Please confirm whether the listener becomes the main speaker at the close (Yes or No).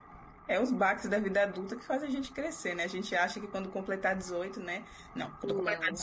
No